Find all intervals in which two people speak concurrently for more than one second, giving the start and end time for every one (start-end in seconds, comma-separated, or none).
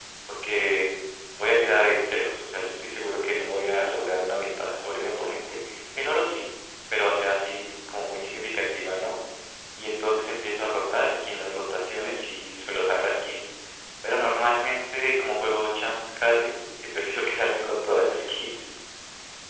none